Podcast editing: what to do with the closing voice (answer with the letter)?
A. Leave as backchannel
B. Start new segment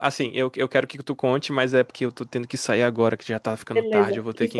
B